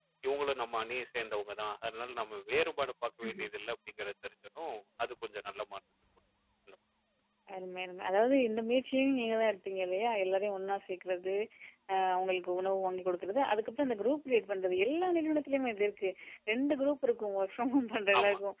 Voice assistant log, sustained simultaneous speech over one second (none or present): none